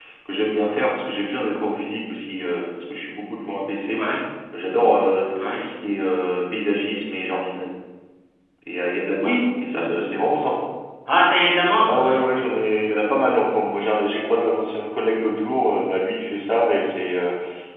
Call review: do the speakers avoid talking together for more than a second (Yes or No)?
Yes